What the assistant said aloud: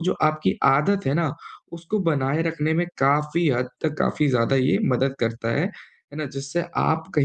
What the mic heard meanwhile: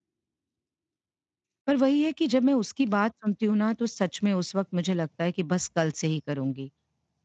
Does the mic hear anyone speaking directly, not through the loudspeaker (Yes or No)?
Yes